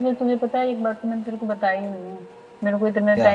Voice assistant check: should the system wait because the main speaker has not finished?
Yes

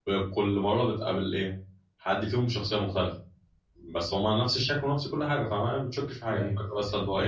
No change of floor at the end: No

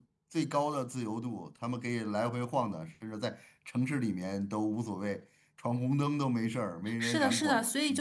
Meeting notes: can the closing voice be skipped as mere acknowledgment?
No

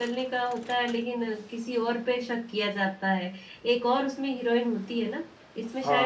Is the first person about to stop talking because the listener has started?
Yes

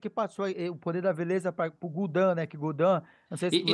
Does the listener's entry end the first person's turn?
Yes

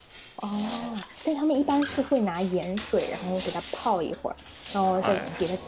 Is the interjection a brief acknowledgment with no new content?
Yes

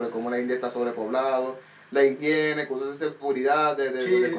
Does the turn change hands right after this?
Yes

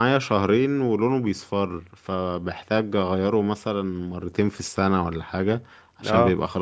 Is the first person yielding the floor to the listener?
No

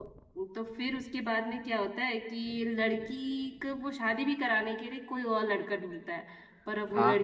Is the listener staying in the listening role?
Yes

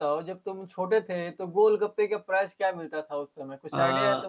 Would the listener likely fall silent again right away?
No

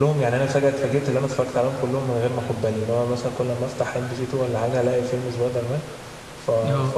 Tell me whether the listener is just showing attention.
Yes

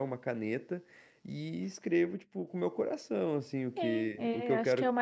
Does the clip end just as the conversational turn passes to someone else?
Yes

